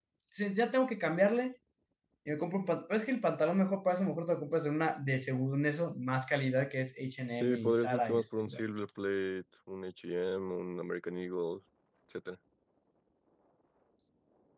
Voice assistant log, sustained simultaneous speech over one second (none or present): present